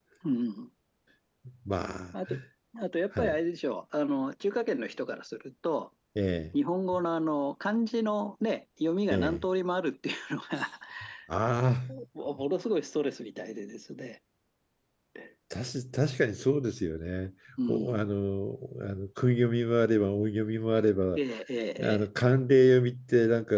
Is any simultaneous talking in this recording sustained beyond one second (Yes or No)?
No